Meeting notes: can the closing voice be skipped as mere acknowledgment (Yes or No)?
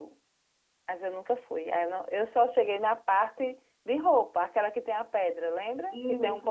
No